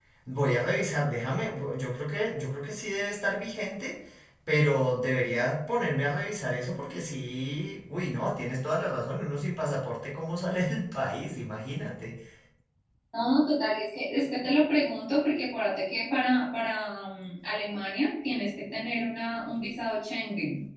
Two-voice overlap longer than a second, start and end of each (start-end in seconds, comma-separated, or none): none